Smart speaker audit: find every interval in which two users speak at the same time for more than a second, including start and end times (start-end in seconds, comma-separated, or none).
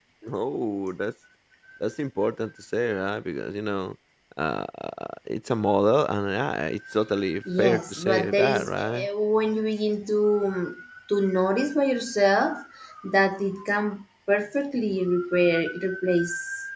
7.6-9.1